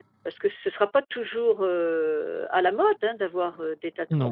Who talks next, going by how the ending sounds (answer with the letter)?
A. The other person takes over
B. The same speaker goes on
A